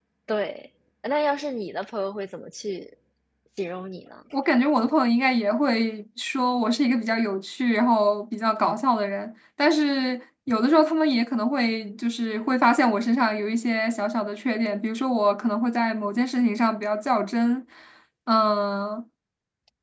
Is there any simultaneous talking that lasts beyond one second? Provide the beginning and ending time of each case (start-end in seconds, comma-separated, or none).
none